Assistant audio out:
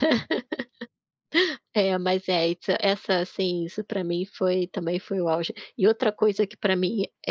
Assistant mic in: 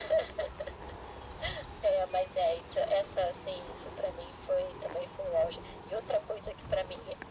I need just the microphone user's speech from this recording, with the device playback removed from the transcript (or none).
none